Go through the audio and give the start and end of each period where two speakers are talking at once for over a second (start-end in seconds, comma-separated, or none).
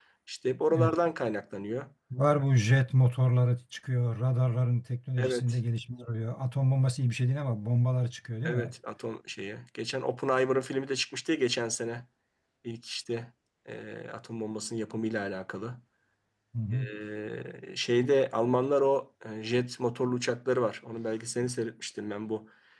none